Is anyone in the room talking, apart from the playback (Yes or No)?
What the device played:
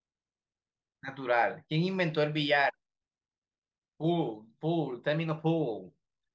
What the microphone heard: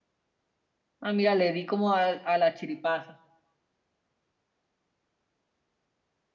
Yes